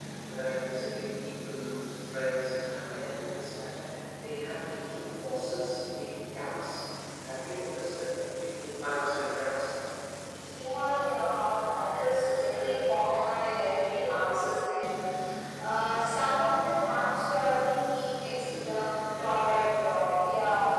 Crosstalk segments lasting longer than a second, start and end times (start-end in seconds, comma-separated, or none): none